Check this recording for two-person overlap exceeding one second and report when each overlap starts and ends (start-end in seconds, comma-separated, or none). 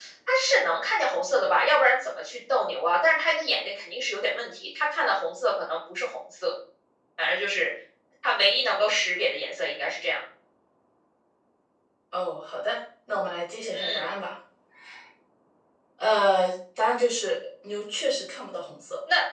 none